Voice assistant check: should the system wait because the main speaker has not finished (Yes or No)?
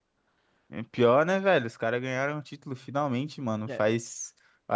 Yes